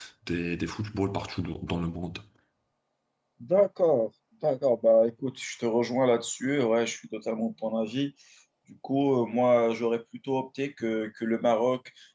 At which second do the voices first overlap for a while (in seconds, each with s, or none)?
none